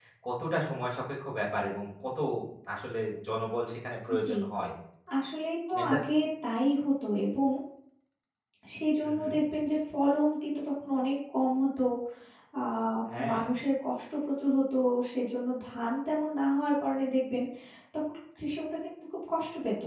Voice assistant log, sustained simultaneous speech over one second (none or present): none